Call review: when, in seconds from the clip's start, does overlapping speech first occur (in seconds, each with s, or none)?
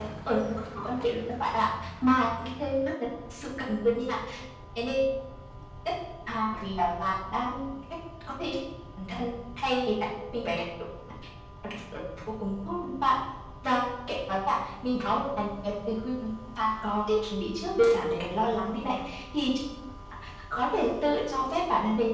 none